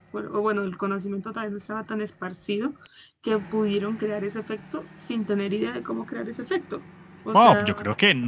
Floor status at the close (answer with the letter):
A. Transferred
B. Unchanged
A